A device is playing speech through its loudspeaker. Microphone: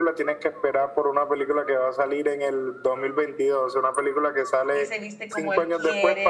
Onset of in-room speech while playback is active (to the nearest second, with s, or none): 5 s